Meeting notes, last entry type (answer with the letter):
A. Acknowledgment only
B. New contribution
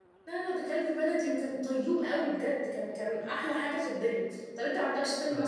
A